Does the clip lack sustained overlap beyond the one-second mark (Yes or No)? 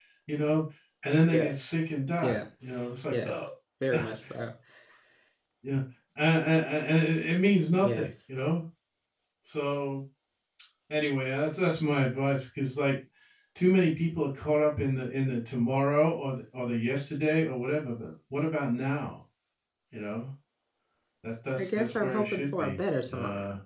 No